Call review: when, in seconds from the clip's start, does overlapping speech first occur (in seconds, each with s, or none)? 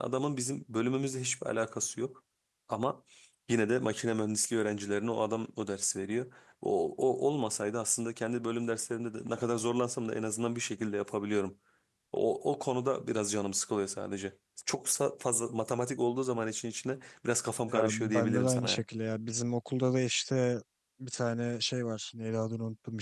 17.6 s